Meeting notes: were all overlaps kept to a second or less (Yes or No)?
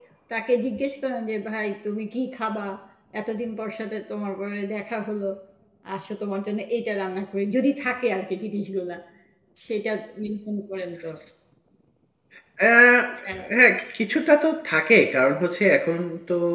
Yes